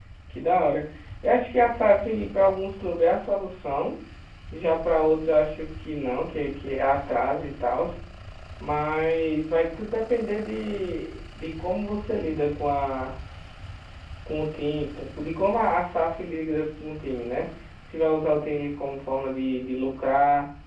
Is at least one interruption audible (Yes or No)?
No